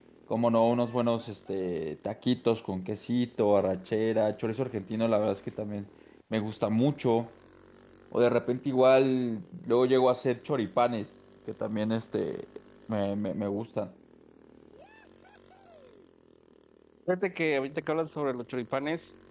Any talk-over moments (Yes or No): No